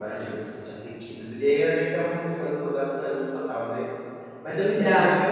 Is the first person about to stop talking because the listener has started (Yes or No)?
No